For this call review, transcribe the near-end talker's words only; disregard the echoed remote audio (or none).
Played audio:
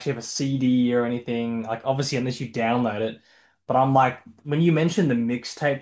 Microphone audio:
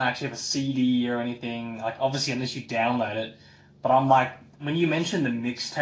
none